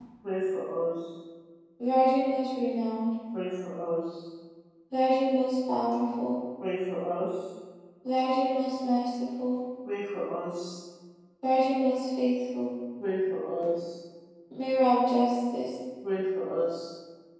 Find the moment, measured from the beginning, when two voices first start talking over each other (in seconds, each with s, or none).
none